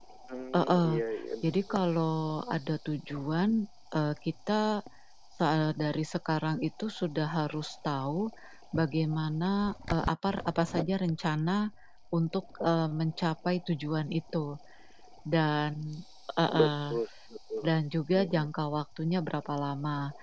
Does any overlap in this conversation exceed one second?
No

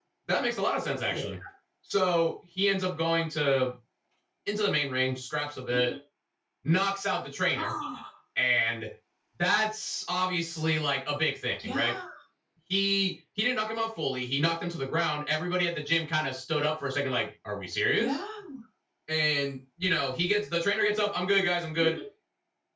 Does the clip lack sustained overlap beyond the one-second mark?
Yes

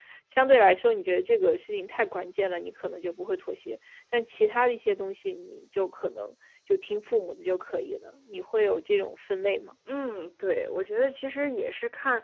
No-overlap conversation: Yes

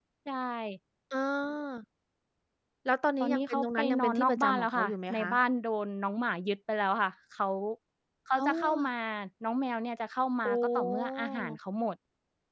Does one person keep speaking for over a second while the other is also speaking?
Yes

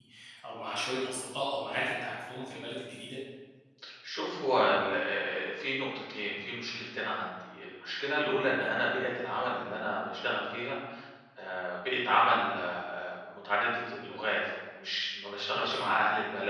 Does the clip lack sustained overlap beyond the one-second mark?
Yes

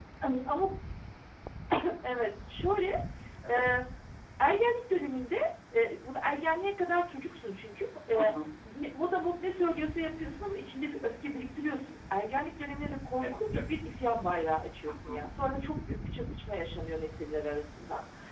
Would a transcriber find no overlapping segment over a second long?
Yes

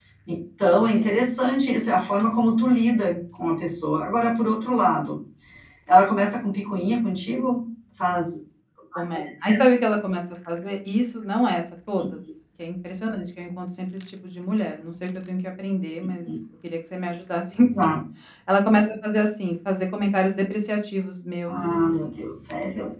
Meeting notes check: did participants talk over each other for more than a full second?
No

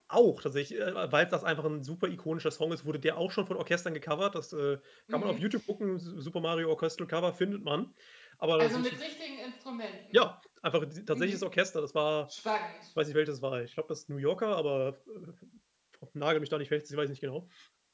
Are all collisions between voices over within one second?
Yes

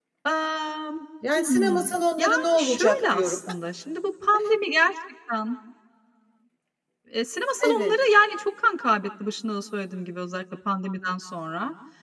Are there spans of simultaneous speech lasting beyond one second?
Yes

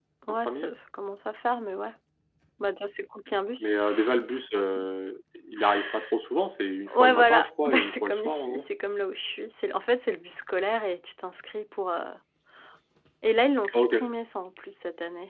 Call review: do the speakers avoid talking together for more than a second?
No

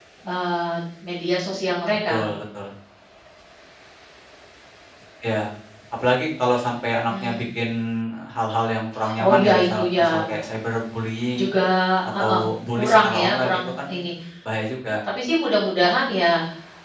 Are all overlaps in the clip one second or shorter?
No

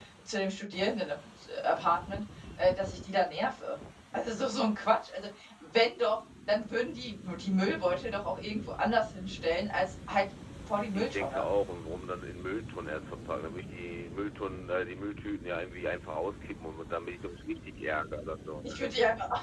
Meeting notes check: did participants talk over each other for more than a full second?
No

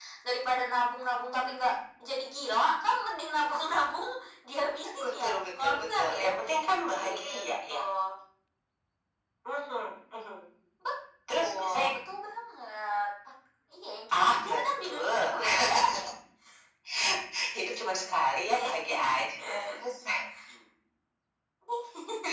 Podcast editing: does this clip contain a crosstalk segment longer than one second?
Yes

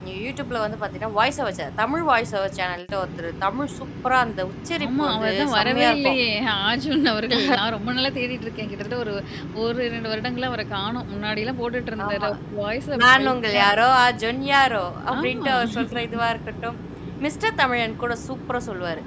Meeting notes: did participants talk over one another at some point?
Yes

